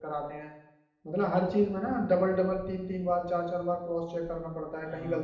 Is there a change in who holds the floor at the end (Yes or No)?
Yes